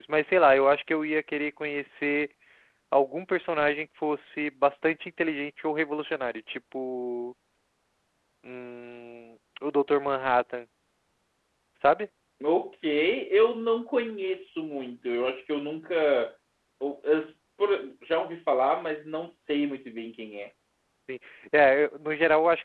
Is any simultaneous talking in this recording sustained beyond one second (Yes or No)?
No